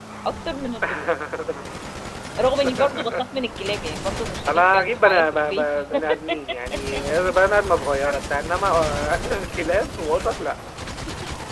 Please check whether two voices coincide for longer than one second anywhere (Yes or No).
Yes